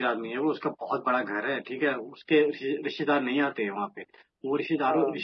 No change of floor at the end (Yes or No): Yes